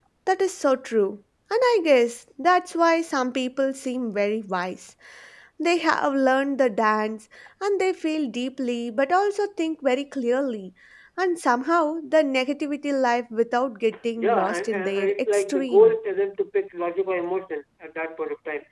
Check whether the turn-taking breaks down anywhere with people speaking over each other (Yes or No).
Yes